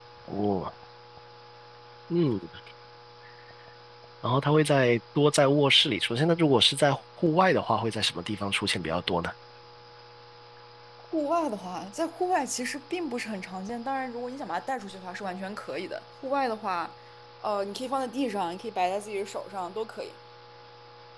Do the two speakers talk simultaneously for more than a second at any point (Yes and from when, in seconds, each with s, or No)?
No